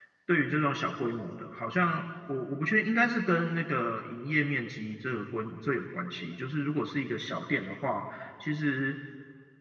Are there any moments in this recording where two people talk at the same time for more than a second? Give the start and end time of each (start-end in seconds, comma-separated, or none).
none